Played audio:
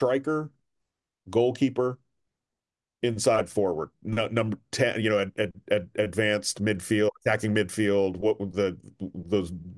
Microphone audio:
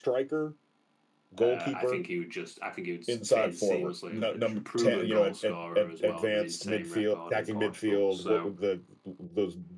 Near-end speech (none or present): present